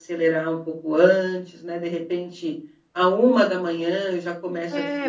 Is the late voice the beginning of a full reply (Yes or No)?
Yes